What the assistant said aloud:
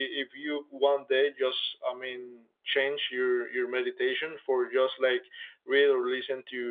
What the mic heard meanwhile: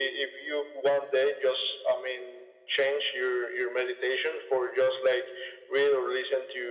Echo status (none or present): present